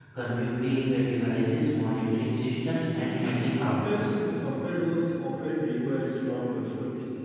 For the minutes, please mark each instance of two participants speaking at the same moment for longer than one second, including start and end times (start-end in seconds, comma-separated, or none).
2.9-4.1